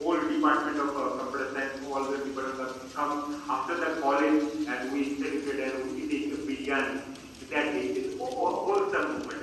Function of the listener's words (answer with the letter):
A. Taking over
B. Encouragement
B